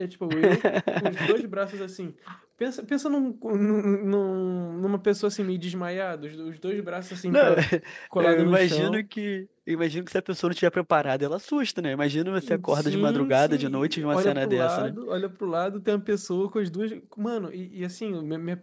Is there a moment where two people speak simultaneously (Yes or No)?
Yes